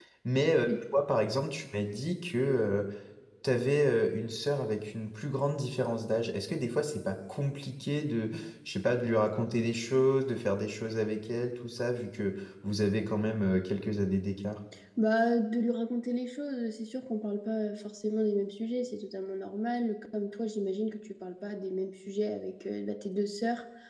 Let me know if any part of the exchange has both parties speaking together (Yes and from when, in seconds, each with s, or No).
No